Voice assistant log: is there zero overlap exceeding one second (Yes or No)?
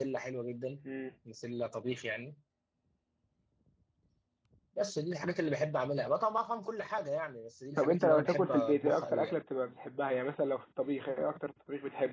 No